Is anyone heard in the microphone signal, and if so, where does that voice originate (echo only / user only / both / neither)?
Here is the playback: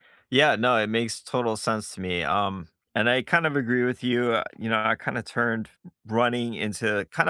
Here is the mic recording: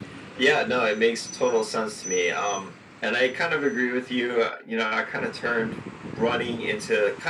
echo only